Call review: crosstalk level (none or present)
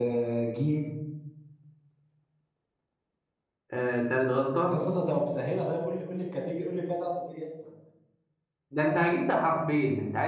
none